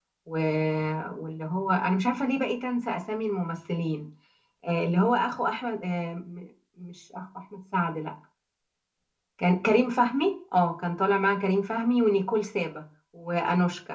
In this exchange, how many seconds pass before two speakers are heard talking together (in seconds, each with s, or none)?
none